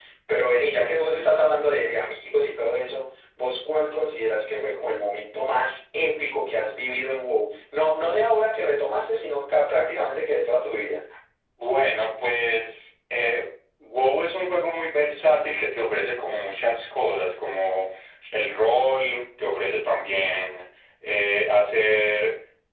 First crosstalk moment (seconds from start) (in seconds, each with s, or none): none